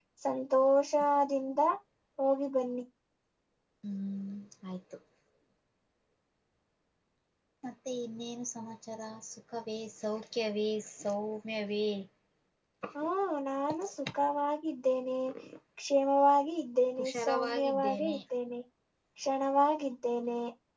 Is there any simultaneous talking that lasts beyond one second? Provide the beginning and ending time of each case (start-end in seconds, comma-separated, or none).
17.0-18.2